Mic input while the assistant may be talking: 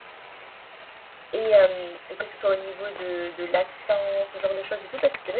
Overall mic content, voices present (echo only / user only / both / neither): user only